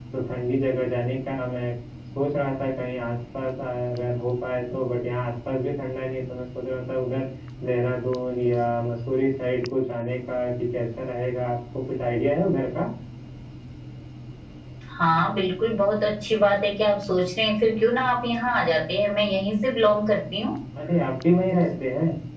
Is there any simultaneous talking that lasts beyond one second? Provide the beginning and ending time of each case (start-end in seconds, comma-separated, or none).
none